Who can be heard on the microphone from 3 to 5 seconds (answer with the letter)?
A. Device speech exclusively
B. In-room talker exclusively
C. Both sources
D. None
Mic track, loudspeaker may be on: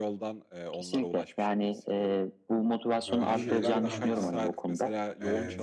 C